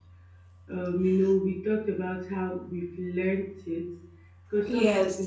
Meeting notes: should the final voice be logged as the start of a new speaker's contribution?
No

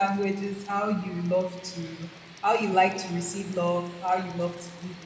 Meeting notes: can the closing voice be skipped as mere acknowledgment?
Yes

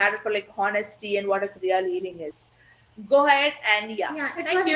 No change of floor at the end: No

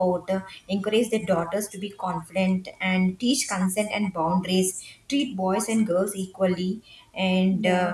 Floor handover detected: No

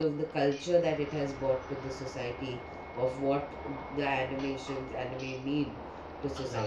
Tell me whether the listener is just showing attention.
No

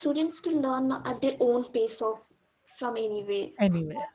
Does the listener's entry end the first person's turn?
No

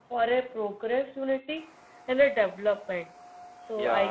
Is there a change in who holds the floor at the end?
No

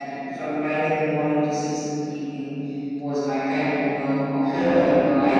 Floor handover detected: No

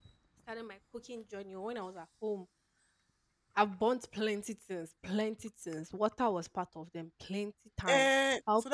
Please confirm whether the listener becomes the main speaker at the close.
Yes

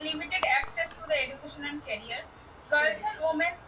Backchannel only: Yes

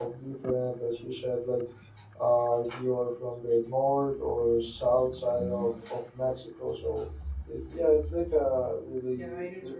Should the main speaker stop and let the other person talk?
Yes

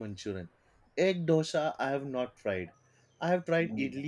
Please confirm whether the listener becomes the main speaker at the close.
No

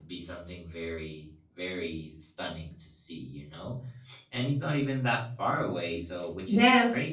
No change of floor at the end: No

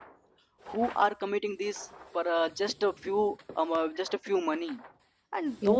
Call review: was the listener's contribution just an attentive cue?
Yes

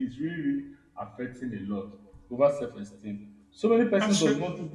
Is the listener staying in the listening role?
Yes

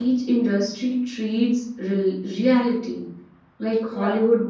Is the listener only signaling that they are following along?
Yes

